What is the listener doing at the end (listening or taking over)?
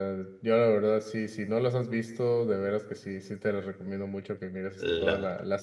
listening